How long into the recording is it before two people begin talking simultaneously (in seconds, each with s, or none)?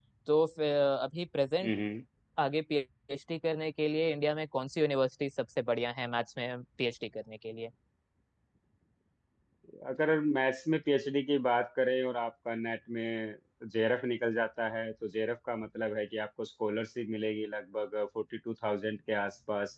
none